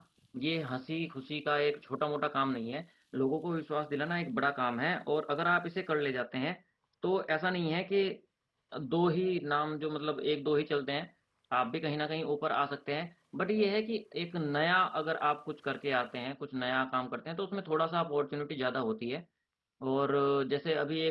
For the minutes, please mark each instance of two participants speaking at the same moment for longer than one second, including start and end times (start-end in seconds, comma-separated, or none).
none